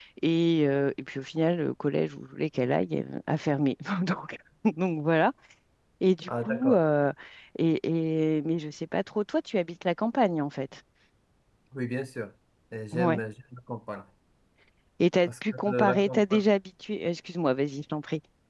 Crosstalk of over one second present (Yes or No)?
Yes